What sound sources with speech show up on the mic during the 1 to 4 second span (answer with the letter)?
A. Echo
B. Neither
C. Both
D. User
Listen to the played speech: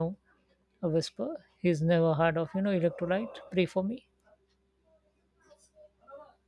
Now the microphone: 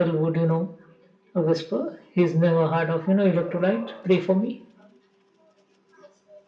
A